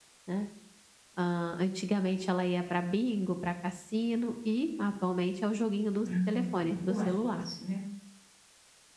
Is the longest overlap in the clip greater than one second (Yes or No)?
Yes